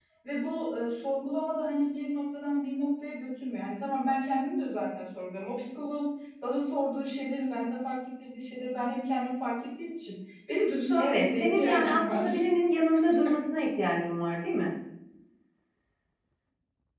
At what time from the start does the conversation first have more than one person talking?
11.0 s

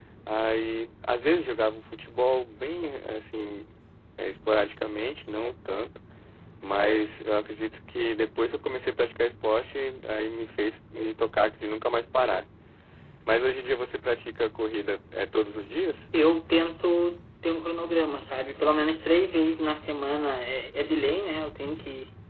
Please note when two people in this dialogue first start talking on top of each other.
none

